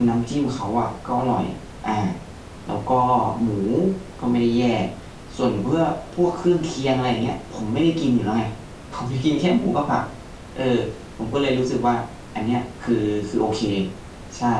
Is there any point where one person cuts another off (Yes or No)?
No